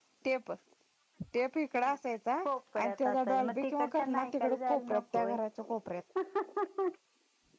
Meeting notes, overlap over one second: present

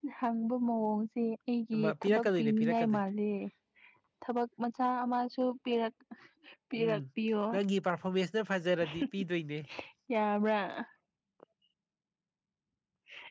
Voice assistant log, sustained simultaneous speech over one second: present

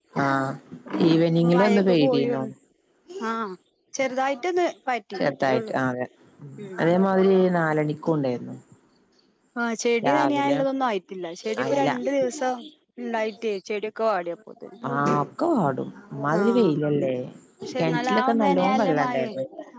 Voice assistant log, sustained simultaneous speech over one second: present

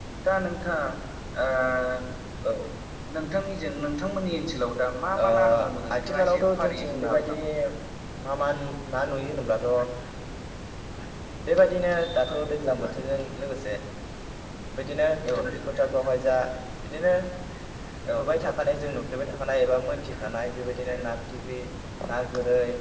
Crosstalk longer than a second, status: present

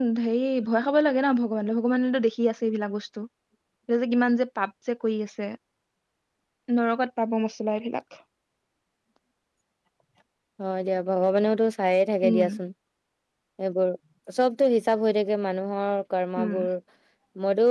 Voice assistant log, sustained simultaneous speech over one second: none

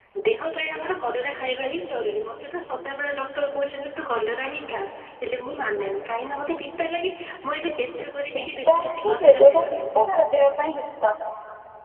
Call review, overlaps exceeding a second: present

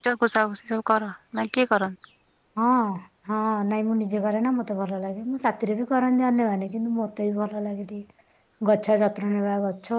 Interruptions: none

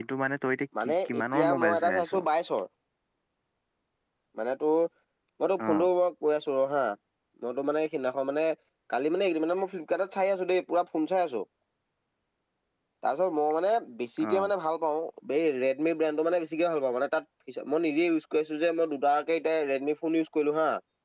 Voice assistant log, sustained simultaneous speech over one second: present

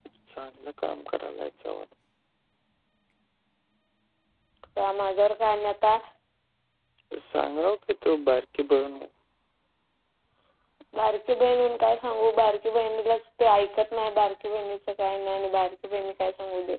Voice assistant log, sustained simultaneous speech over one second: none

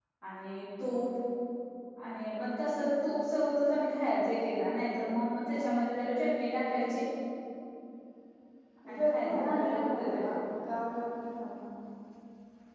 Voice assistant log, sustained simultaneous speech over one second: present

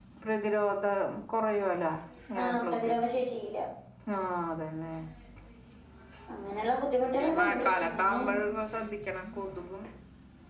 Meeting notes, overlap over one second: present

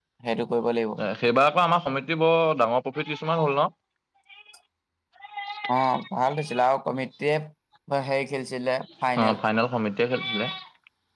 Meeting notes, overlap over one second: none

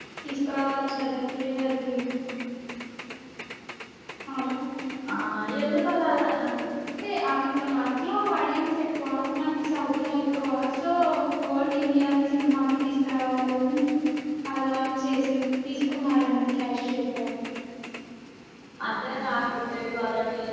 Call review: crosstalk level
none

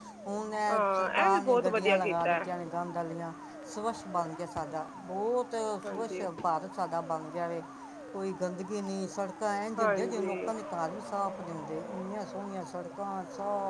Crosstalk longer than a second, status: present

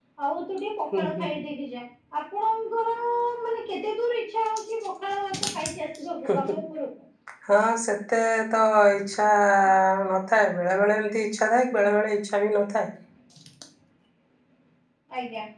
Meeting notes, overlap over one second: none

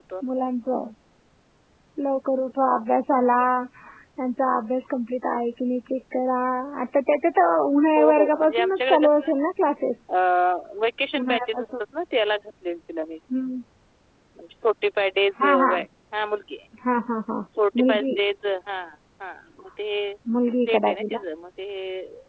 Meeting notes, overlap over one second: present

